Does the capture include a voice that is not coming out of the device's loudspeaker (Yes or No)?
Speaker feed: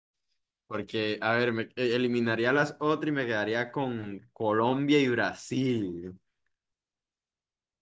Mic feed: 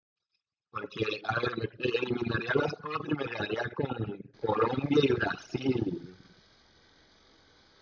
No